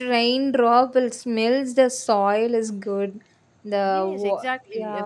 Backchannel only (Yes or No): No